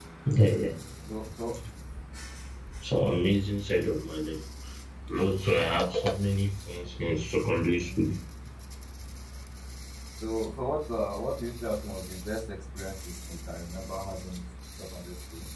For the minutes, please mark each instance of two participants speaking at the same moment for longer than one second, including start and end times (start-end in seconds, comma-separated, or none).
none